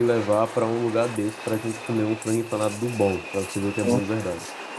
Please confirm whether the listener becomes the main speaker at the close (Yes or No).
Yes